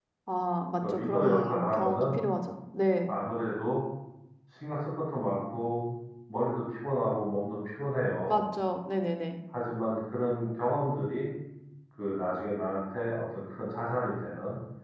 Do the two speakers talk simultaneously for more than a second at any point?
Yes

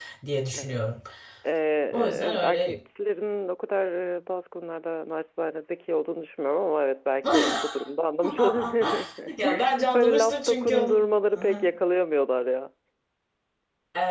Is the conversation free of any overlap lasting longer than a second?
No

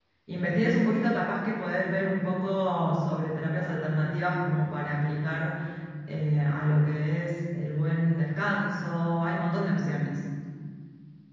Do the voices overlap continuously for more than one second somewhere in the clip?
No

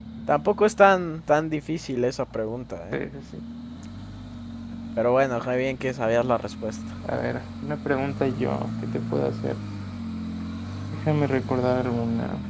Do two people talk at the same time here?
No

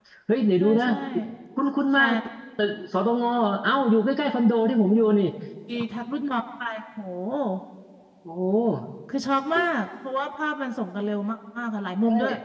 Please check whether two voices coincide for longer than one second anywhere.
No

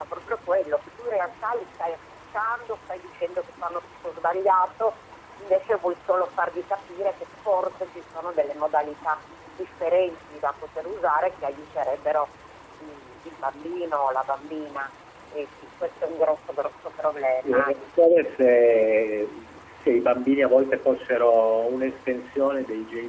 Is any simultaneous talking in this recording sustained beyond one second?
No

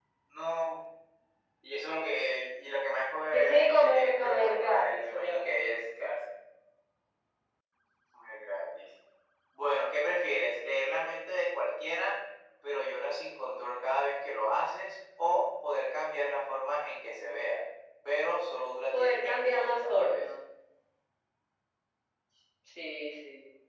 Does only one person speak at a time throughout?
No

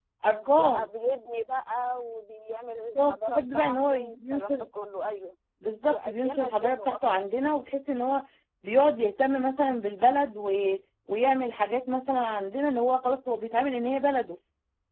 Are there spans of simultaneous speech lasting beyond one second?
Yes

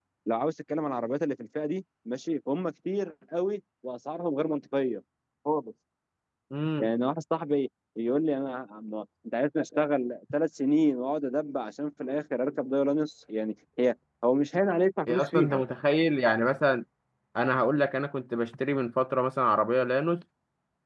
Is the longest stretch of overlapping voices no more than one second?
Yes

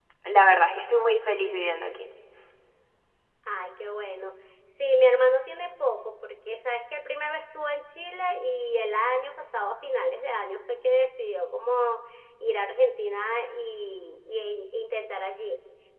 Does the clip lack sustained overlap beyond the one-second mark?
Yes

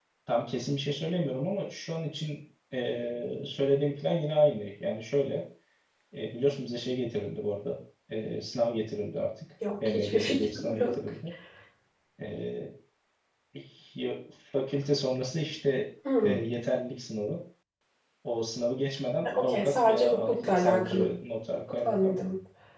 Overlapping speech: Yes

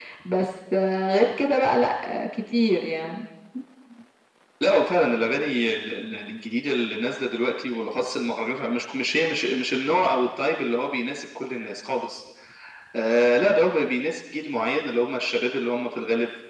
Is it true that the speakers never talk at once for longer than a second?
Yes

